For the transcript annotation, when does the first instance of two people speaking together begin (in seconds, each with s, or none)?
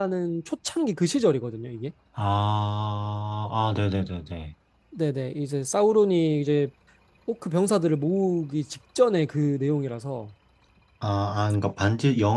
none